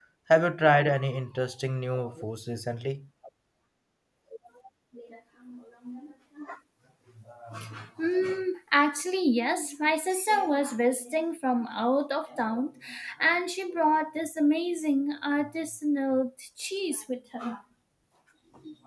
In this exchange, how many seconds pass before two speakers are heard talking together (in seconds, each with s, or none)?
none